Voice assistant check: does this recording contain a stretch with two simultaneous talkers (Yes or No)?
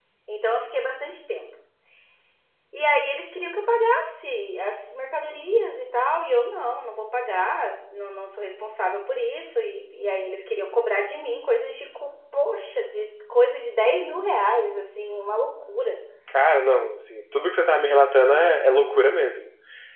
No